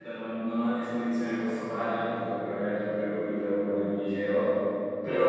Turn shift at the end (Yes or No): No